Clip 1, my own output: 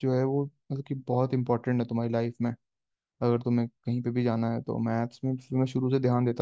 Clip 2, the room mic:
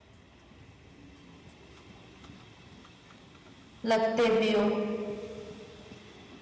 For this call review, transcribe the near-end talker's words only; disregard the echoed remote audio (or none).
लगते भी हो